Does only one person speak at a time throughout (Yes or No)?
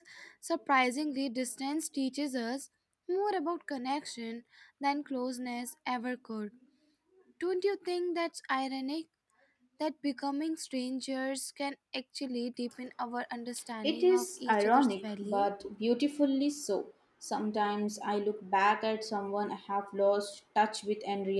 No